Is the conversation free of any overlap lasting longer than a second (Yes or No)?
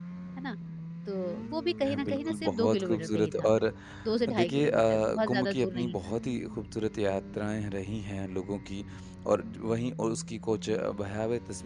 No